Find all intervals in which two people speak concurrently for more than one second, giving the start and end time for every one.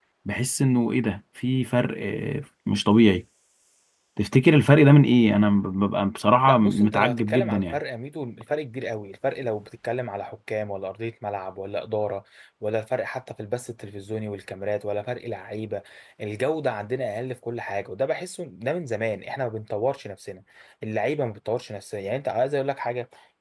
6.5-7.8

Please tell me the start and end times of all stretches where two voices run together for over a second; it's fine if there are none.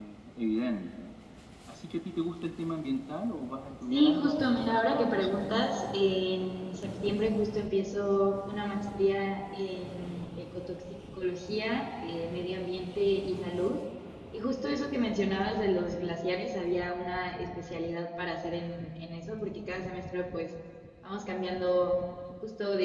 3.9-5.4

